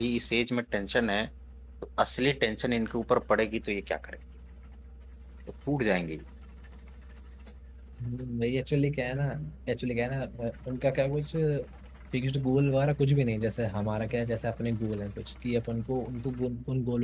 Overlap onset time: none

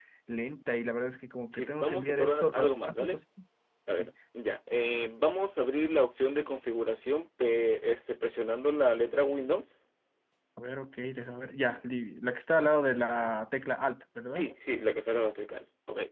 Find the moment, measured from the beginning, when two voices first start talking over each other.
1.6 s

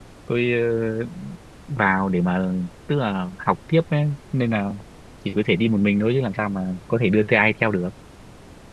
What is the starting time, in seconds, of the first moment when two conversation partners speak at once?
none

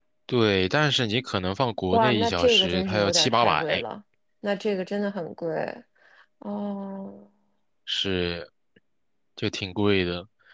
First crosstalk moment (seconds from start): 1.9 s

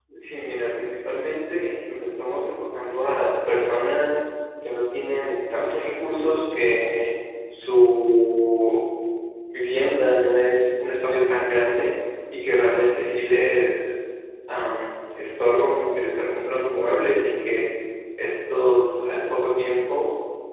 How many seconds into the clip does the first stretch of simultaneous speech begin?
none

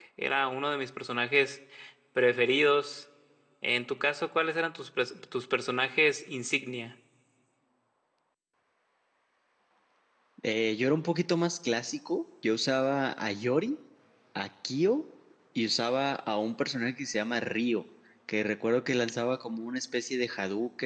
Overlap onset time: none

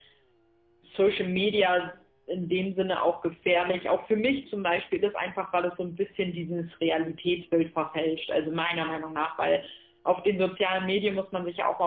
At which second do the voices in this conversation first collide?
none

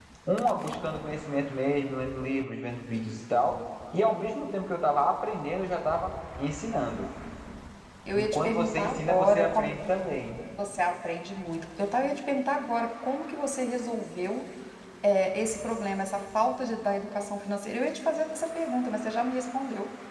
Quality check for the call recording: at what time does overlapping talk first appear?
8.1 s

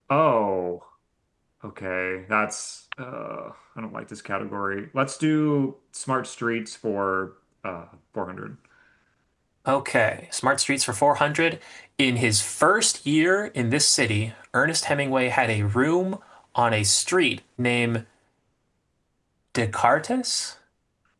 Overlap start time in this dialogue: none

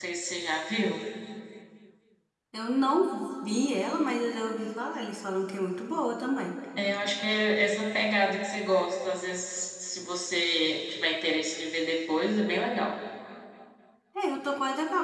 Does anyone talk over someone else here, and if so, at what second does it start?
none

